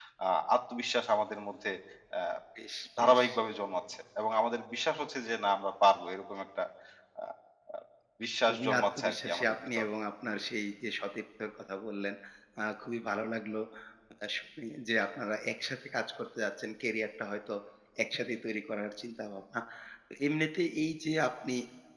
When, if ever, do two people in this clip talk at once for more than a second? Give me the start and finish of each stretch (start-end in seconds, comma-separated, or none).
8.5-9.8